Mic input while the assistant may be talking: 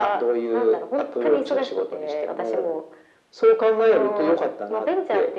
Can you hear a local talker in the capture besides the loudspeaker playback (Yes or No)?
No